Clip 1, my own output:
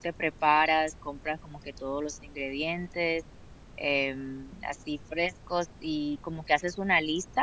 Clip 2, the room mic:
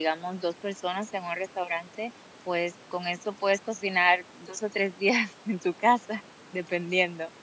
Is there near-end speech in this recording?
Yes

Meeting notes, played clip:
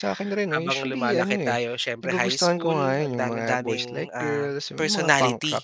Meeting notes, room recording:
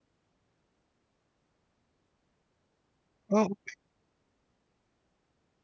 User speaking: Yes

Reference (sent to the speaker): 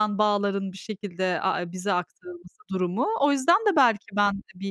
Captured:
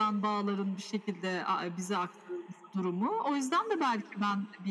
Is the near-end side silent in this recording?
Yes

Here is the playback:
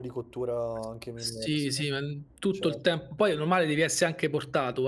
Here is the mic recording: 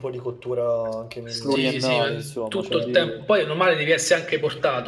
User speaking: Yes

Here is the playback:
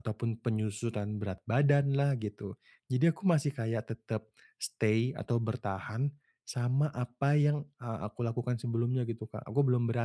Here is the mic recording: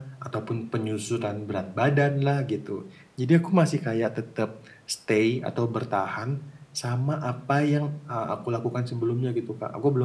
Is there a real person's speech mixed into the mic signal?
No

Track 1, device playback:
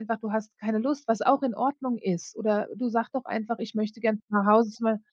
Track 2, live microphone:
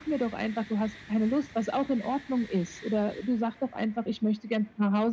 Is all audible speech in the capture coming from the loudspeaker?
Yes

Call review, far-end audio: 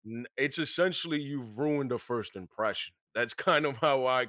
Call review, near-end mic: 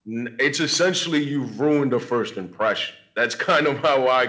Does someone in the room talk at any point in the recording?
No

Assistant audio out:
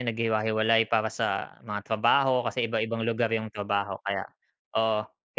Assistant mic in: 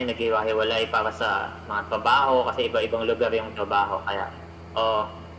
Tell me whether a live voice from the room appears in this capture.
No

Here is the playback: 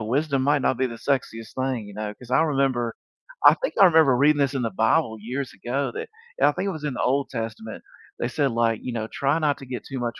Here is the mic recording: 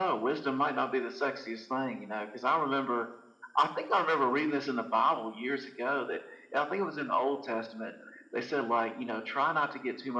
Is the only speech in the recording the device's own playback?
Yes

